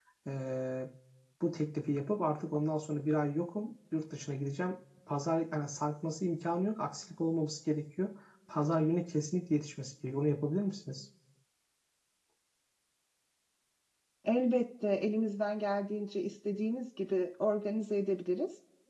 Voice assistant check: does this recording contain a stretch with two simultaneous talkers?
No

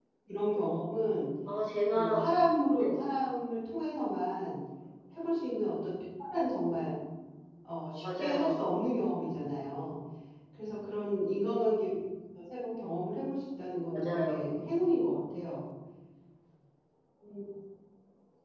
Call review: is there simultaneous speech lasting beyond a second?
No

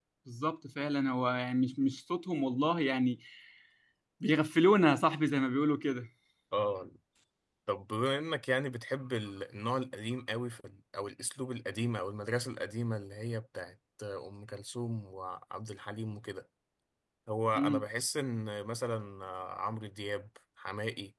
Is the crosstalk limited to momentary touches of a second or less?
Yes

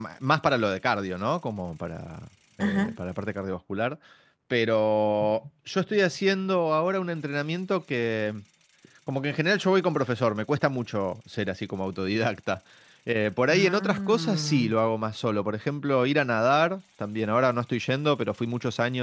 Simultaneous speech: Yes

